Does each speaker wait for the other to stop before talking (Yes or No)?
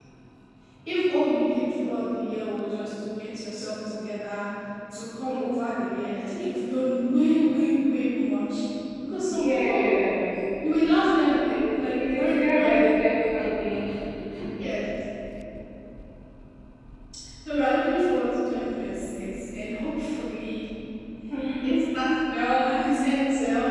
No